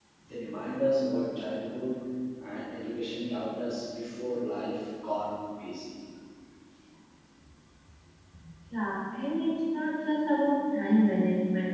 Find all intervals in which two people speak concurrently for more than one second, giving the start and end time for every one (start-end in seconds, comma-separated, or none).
none